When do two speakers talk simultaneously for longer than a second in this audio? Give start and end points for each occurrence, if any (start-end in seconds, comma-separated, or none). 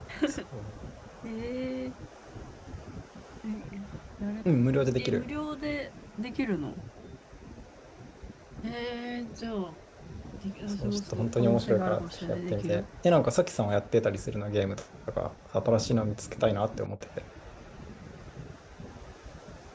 10.7-12.8